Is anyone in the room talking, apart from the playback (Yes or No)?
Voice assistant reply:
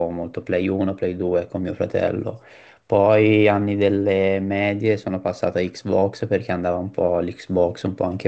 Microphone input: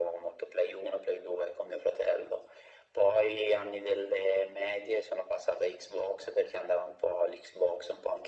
No